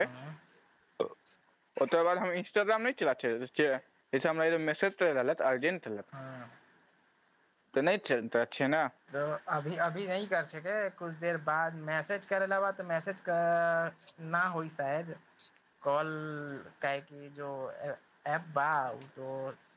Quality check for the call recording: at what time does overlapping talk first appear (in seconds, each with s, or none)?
none